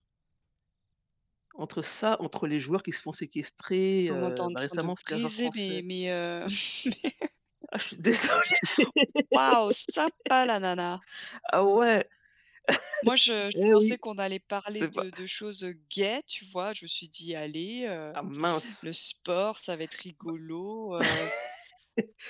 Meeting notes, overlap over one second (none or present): present